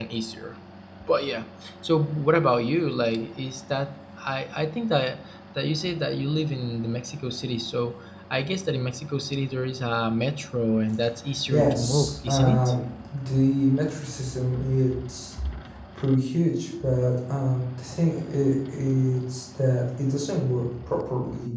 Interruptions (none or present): present